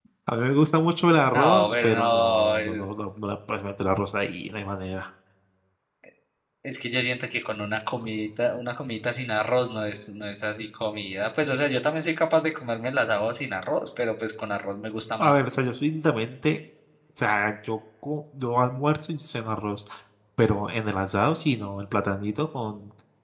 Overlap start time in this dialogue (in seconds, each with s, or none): 1.3 s